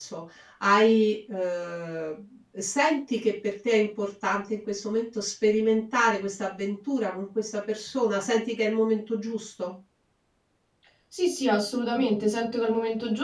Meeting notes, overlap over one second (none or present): none